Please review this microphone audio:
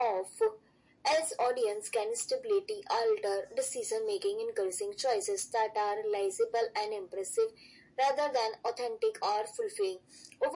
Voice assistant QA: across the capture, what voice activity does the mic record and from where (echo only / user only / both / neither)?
echo only